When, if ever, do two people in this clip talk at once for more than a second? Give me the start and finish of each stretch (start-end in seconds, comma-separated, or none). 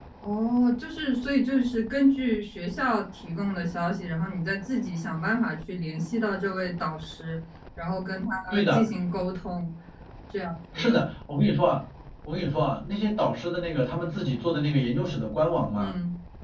none